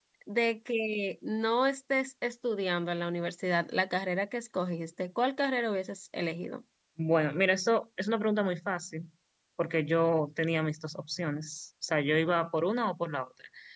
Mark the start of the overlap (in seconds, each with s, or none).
none